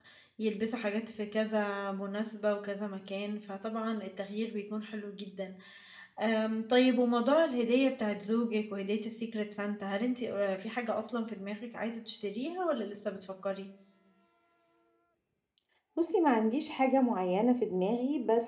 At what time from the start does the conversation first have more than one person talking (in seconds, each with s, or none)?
none